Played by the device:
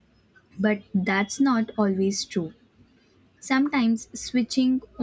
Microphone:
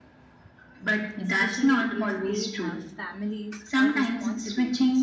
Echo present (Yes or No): Yes